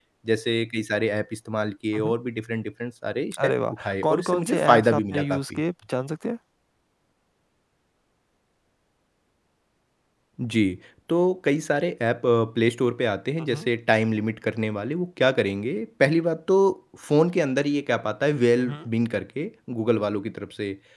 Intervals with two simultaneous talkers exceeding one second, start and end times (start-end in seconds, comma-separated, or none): 3.4-5.6